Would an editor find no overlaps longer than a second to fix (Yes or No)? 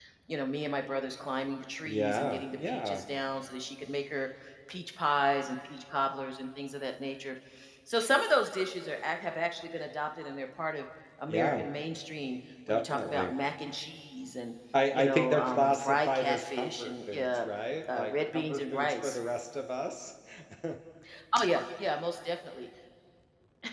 No